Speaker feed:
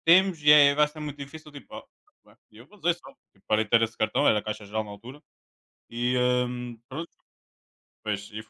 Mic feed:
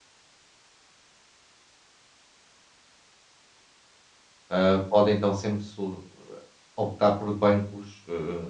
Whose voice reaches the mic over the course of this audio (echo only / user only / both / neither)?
user only